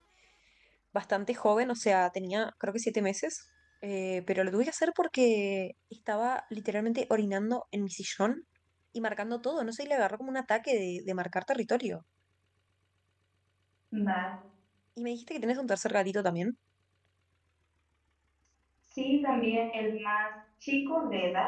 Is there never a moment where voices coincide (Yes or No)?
Yes